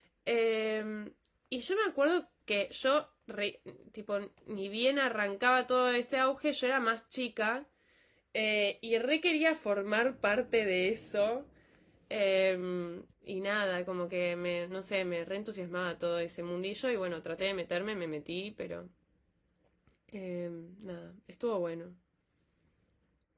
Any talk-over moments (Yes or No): No